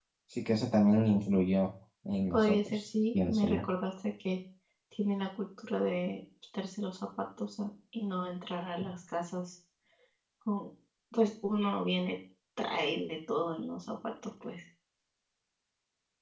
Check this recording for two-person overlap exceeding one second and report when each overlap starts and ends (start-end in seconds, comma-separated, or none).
2.3-3.6